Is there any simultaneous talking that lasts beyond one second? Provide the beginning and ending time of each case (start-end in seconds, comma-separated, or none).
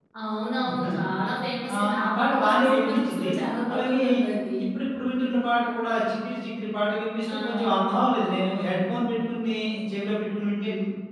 1.7-3.3